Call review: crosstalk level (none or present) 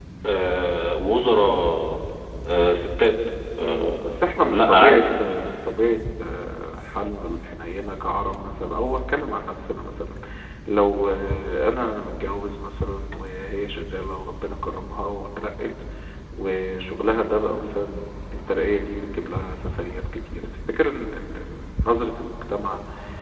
present